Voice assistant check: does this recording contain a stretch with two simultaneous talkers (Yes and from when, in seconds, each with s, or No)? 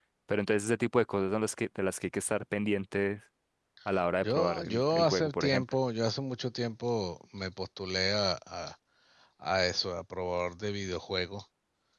Yes, from 4.2 s